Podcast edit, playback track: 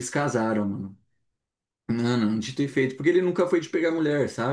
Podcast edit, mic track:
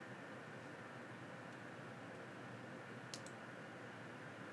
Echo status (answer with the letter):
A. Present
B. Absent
B